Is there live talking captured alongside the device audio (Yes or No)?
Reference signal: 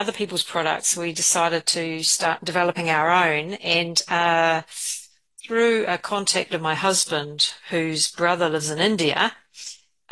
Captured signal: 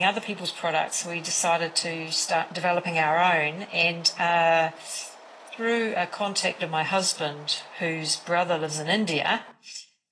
No